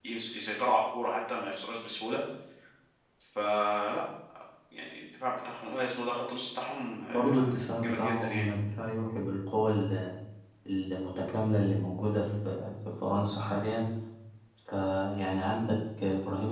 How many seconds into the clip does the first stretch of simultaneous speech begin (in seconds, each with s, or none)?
7.1 s